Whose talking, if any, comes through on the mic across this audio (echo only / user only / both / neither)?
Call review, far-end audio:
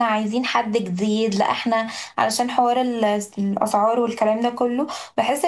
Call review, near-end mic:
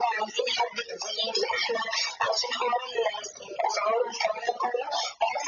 echo only